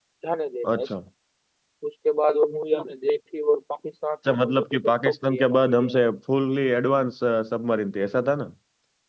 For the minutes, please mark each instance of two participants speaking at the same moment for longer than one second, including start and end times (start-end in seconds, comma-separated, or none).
4.4-6.1